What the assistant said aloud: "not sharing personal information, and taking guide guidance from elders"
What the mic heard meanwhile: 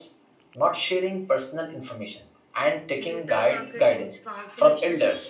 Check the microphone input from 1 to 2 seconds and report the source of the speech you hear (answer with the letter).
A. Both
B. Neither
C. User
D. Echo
D